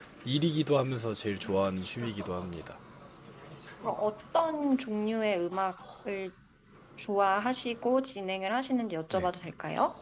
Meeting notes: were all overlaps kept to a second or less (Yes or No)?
Yes